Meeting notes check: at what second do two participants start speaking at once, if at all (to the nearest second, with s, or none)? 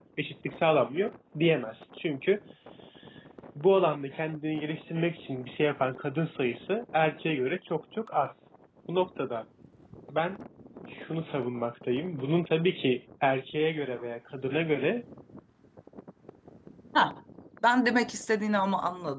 none